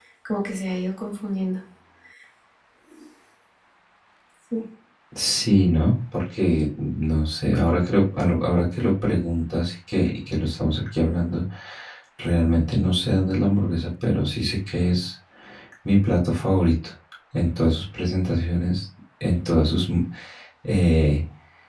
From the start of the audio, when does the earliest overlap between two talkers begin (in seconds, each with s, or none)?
none